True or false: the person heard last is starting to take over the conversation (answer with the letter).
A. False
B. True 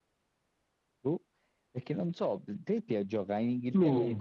A